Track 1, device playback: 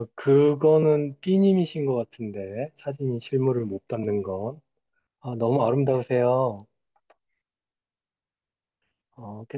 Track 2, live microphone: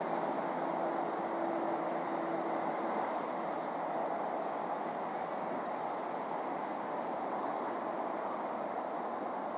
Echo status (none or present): none